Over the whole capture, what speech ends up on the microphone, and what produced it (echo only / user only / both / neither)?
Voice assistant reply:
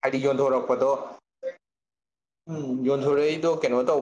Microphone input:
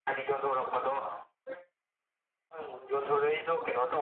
echo only